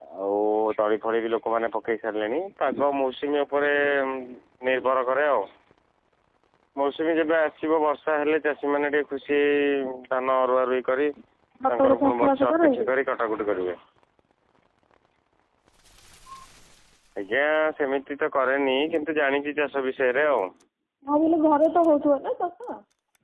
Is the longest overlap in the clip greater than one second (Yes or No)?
Yes